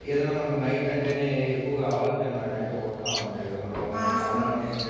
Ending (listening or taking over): taking over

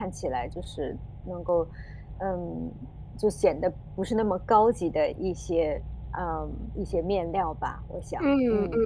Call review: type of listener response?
taking over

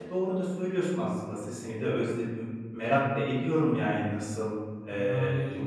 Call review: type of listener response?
listening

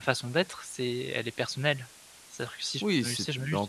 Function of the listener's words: taking over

